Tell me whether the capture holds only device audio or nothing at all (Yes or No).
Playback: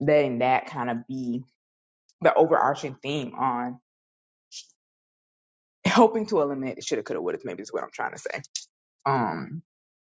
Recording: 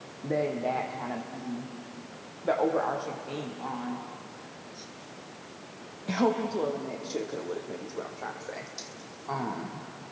Yes